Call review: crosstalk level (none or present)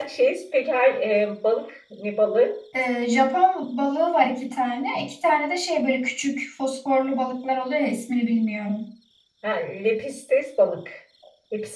none